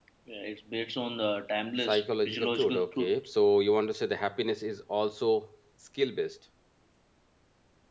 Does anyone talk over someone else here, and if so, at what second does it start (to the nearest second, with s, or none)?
2 s